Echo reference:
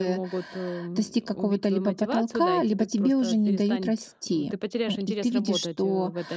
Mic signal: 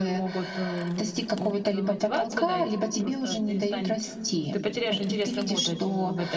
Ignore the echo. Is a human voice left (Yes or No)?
No